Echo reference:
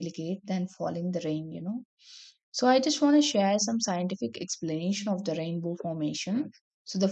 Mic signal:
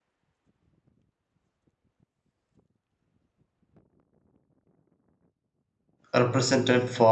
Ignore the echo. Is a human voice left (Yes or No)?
Yes